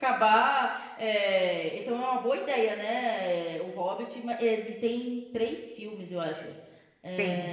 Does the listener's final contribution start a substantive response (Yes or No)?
No